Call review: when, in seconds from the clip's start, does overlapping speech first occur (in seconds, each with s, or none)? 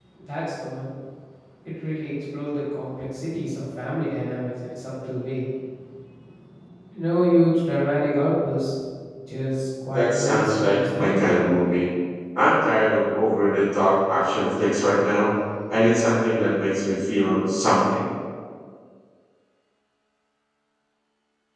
9.9 s